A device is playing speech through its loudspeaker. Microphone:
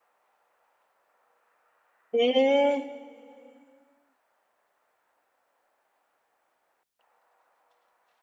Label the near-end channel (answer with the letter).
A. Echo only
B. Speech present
B